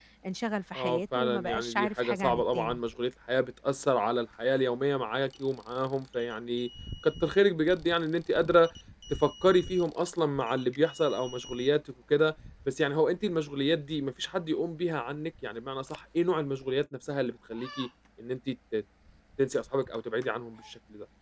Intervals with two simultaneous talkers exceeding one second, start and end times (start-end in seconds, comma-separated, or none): 0.8-2.8